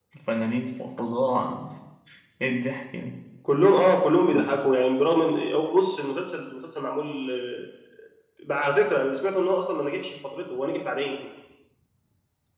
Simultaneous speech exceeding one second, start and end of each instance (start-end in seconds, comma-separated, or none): none